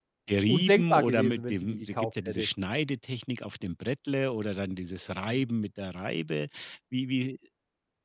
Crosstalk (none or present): present